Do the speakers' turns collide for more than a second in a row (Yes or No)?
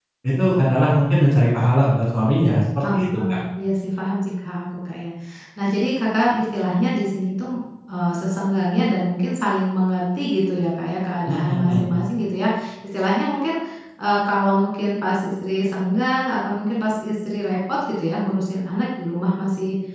No